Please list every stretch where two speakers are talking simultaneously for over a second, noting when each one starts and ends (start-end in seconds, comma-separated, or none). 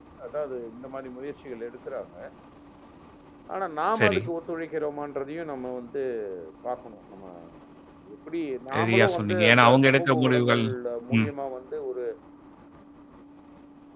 8.7-10.6